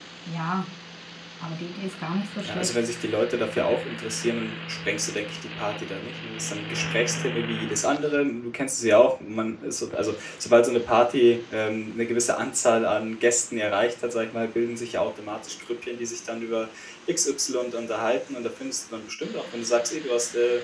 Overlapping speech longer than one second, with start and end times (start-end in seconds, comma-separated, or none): none